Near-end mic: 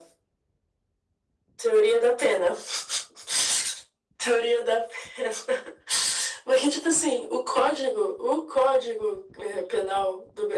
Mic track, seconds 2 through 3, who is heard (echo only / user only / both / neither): echo only